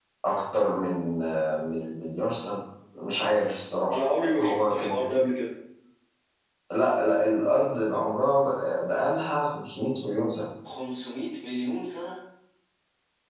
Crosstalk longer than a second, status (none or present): present